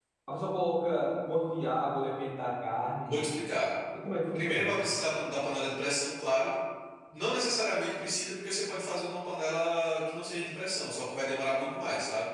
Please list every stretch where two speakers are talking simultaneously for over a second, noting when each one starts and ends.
none

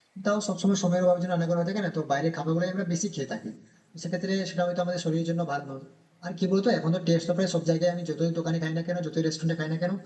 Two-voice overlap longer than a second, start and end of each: none

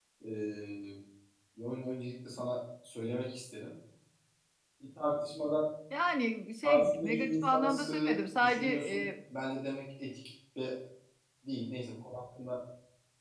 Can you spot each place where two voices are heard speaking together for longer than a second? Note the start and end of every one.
6.6-9.1

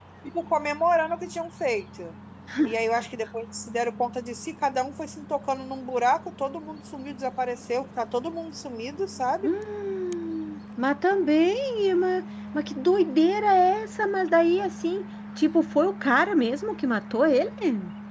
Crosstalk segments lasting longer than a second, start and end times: none

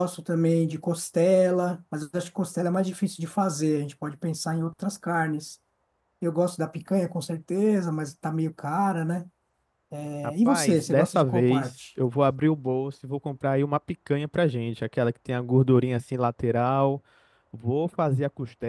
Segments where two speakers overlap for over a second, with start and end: 10.2-11.7

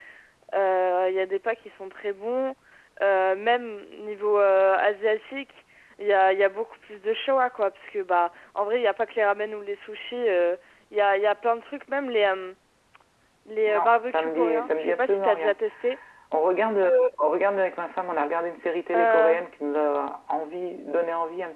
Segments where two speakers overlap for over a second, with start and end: 13.7-15.5

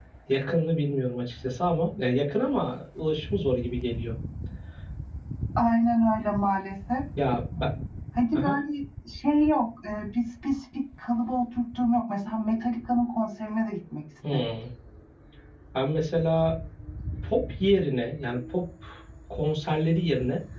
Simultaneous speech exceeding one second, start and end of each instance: none

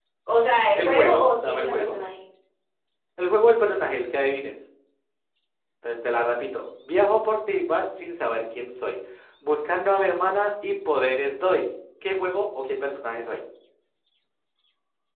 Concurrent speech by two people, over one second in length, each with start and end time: 0.7-2.0

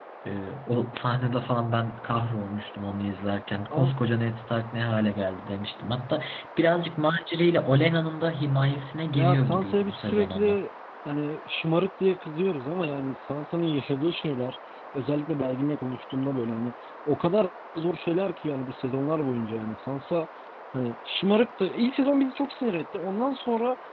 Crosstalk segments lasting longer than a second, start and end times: 9.1-10.6

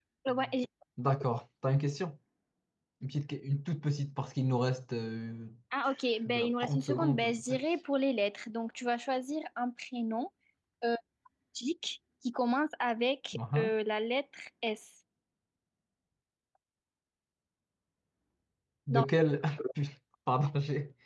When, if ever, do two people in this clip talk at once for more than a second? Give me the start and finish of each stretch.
6.3-7.6

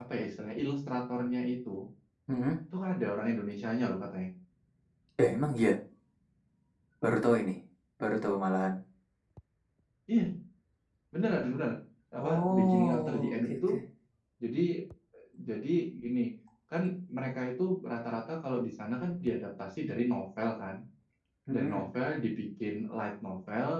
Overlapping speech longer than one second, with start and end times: 12.2-13.6

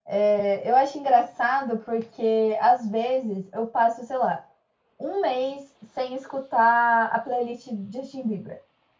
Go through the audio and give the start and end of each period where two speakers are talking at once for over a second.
none

